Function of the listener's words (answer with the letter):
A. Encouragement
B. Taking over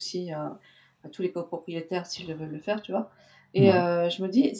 A